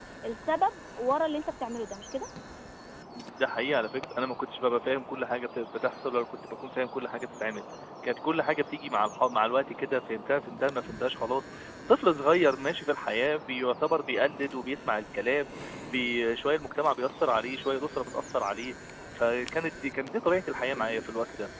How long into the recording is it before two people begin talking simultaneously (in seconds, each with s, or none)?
none